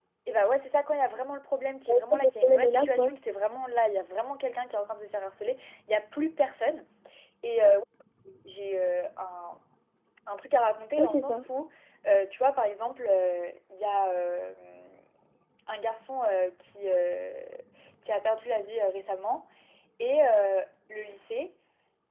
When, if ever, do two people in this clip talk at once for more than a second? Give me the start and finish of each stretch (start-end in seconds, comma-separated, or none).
1.9-3.1